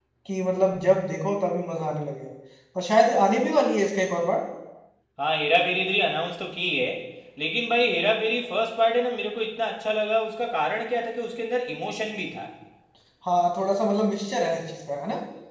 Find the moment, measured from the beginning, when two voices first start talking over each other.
none

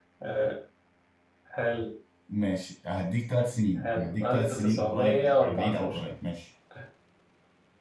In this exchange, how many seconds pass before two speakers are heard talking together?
4 s

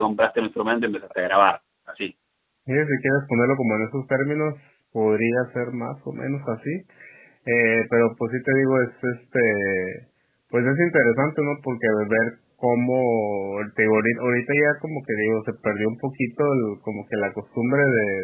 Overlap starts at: none

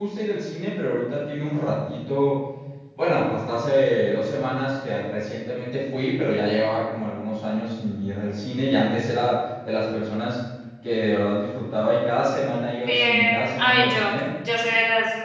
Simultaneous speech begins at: 13 s

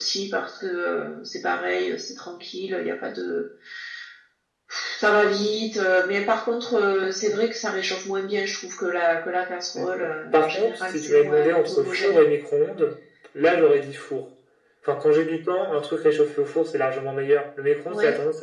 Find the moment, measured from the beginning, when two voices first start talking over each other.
10 s

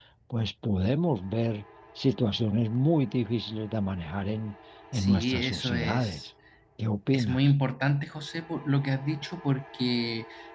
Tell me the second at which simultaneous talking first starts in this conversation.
5 s

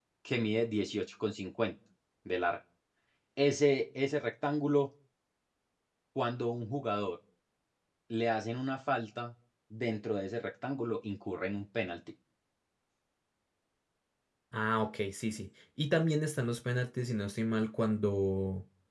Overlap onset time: none

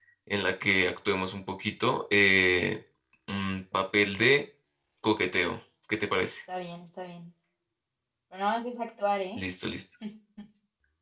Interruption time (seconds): none

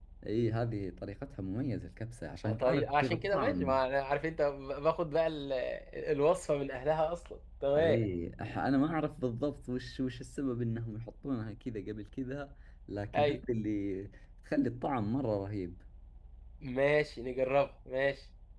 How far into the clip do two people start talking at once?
2 s

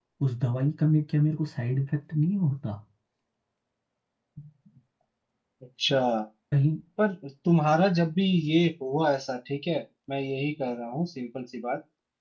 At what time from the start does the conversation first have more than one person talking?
none

